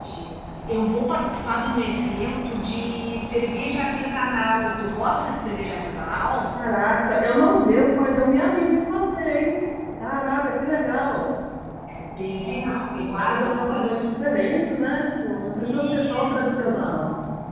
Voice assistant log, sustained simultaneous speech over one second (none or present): present